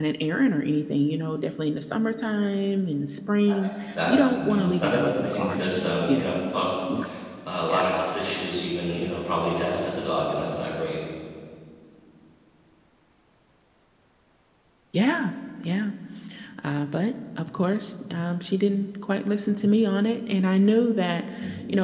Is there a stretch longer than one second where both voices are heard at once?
Yes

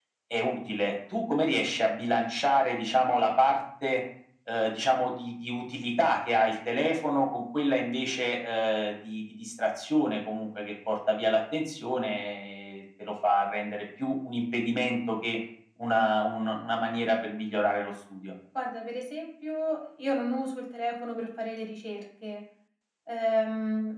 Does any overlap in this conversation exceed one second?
No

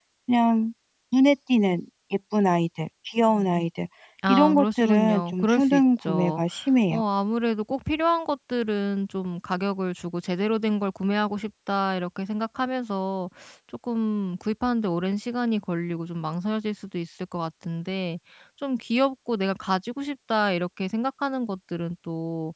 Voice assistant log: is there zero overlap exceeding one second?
No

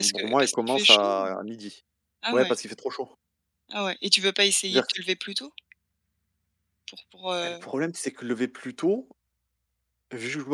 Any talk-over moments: Yes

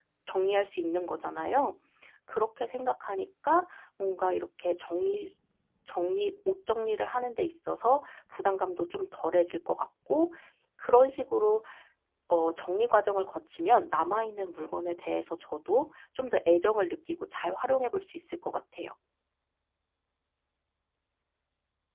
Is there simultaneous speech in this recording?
No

